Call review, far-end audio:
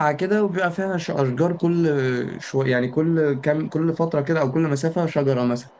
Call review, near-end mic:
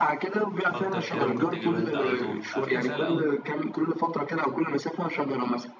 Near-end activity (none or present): present